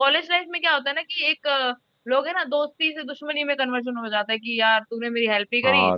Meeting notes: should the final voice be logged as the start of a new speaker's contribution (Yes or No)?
Yes